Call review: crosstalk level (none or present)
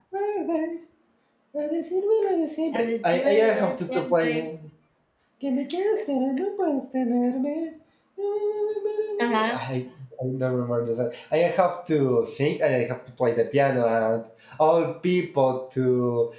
present